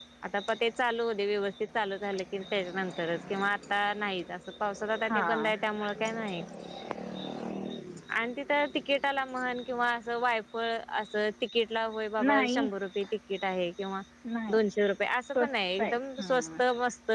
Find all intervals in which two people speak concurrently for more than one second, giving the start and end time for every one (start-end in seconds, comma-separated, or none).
15.4-16.6